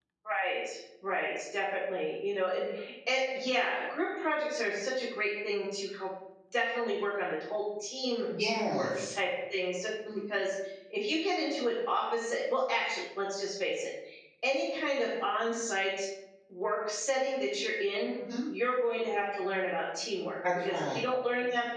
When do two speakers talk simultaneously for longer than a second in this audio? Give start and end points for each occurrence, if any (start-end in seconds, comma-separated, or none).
none